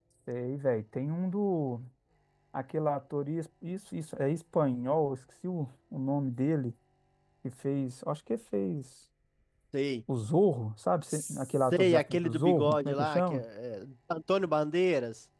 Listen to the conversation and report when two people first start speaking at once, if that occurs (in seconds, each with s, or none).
11.1 s